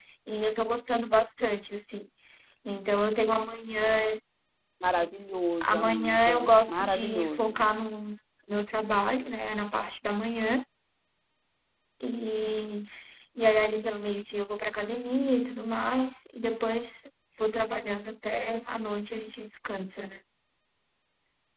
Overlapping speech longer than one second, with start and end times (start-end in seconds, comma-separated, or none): 5.6-7.6